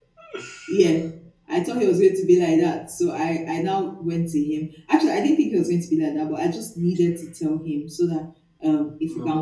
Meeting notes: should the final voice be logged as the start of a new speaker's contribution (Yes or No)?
No